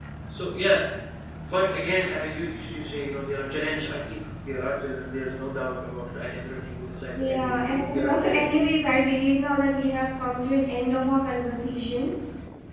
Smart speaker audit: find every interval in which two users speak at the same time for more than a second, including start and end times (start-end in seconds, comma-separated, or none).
7.2-8.5